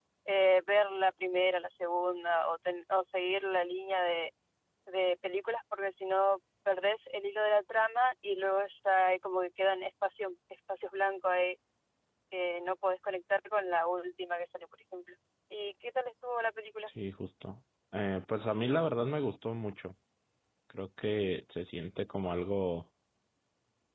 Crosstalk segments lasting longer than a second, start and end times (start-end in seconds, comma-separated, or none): none